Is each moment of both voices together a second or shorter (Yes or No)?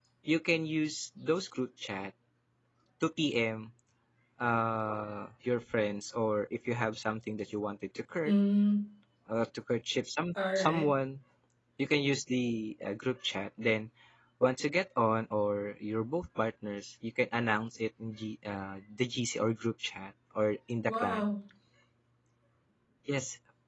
Yes